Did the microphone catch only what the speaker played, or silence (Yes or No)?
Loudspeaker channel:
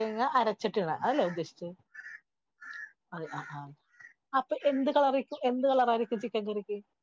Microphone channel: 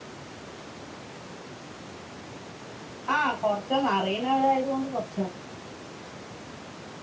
No